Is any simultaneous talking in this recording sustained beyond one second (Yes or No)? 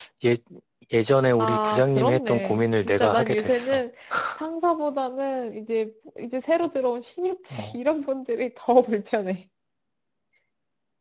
Yes